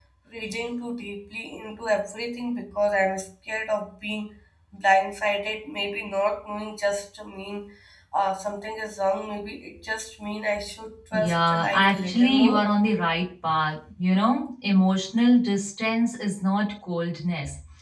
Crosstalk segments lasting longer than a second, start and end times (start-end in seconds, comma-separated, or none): 11.1-12.7